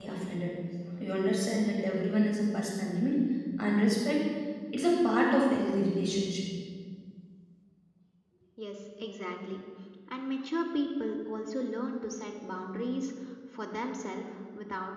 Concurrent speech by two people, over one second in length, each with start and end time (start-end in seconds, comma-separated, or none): none